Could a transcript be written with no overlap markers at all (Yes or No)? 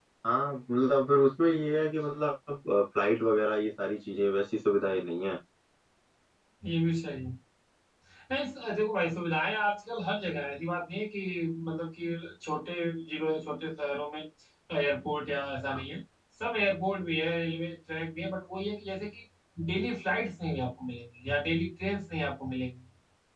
Yes